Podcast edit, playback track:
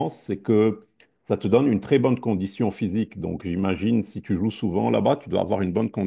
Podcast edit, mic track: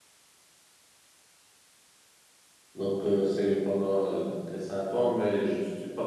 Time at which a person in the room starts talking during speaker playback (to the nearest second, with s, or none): 3 s